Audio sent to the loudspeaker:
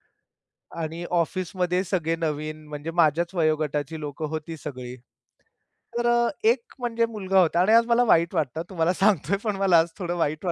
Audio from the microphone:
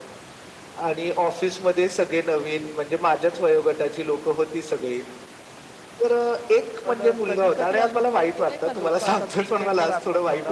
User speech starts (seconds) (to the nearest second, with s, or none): 7 s